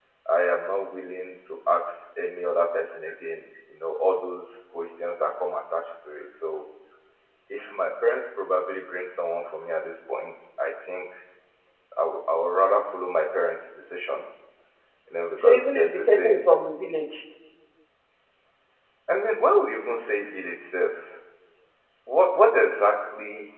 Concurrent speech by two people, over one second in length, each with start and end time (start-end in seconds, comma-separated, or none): 15.4-16.6